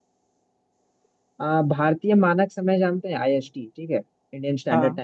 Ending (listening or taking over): listening